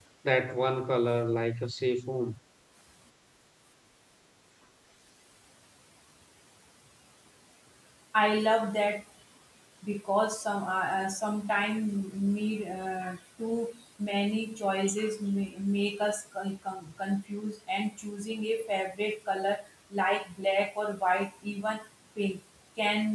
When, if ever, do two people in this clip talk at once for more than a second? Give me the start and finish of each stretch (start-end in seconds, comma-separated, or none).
none